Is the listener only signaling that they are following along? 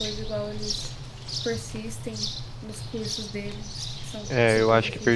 No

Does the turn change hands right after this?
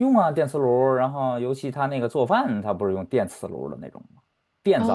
Yes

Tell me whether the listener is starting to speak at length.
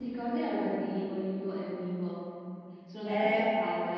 No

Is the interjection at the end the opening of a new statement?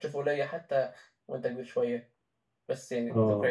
No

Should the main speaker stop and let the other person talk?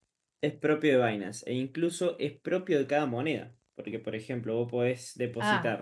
Yes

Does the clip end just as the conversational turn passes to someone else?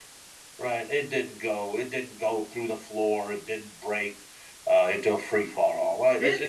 Yes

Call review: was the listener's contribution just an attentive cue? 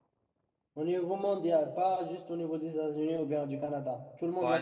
No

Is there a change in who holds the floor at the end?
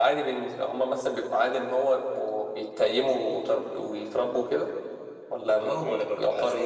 Yes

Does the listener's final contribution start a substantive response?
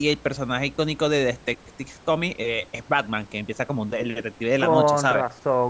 Yes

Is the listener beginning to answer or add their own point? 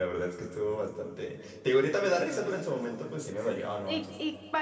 Yes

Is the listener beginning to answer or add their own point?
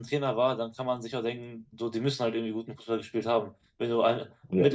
No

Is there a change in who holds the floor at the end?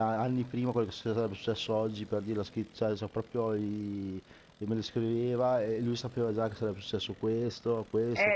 Yes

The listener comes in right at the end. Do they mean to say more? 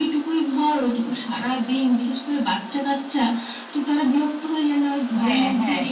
Yes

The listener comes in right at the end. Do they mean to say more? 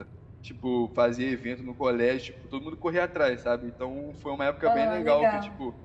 No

